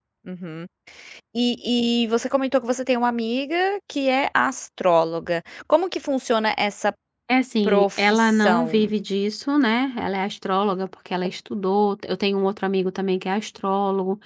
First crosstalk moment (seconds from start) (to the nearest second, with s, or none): 8 s